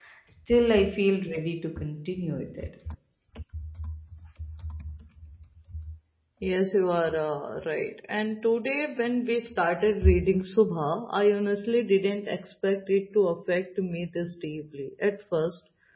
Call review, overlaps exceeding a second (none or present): none